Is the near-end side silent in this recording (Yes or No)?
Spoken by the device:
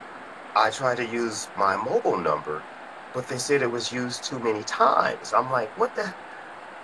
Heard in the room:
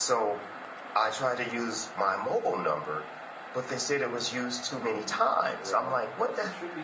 No